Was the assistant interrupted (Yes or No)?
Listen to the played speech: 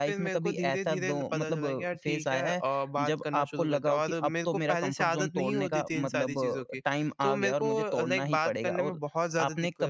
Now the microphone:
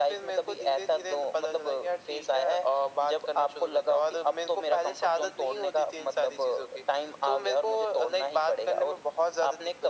No